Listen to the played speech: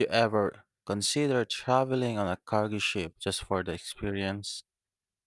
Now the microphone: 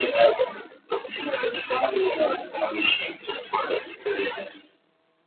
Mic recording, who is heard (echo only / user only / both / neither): echo only